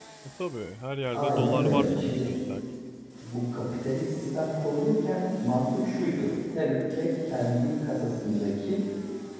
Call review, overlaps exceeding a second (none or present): present